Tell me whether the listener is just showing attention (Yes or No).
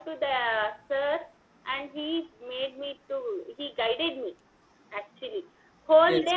Yes